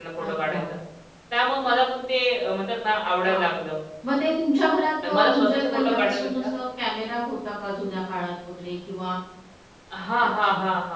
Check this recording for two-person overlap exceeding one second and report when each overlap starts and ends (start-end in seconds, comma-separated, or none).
5.0-6.5